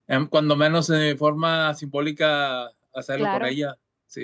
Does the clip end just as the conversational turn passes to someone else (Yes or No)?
No